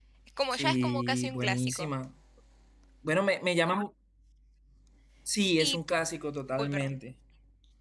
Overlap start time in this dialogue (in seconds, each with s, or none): 0.5 s